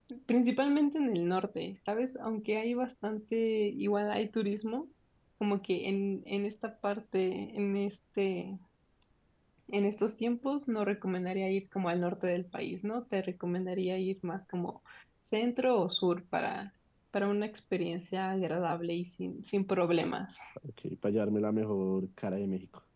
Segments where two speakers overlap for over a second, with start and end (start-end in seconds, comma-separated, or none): none